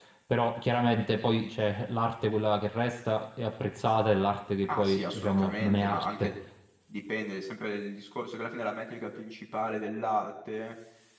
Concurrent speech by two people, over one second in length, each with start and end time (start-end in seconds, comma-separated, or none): 4.7-6.3